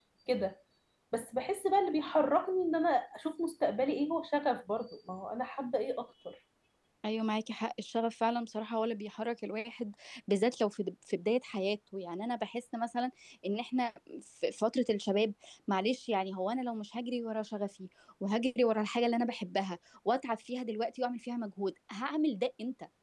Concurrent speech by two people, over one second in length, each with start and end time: none

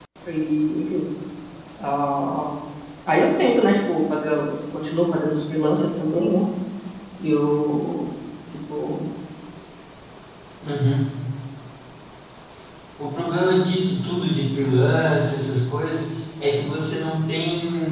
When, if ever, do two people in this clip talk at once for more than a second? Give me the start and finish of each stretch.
none

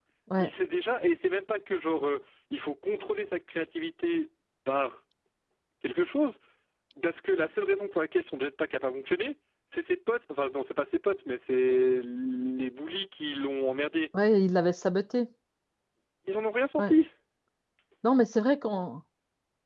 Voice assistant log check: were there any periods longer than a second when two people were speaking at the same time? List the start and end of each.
none

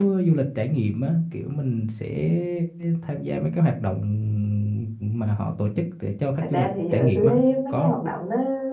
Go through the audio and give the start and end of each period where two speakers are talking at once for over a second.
6.5-7.9

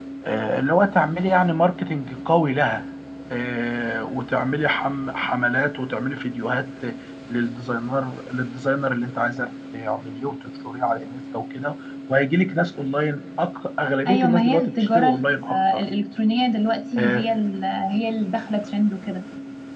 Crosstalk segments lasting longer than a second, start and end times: 14.1-15.8

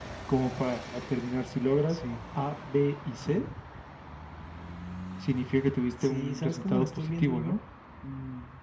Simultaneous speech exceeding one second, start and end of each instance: 6.0-7.6

